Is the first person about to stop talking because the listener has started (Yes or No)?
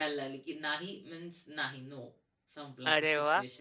Yes